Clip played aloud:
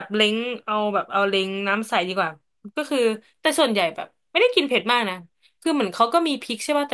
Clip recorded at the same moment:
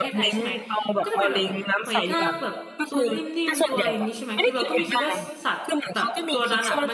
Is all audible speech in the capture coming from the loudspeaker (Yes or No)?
No